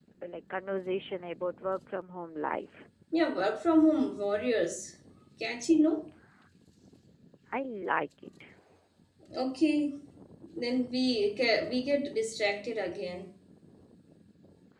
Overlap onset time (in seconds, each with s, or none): none